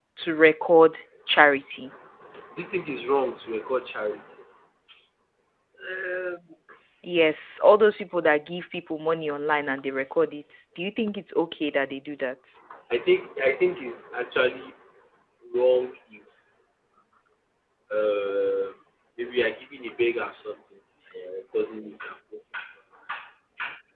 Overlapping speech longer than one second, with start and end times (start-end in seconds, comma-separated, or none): none